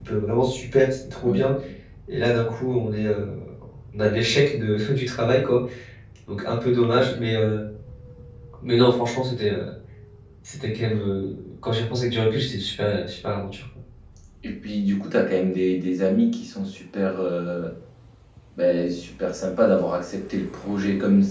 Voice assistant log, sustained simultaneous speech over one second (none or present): none